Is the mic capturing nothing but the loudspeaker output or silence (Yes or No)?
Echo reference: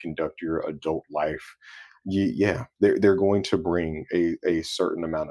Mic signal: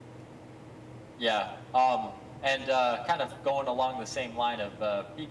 No